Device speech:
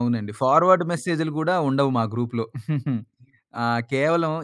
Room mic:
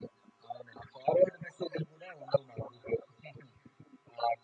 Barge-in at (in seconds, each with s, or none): none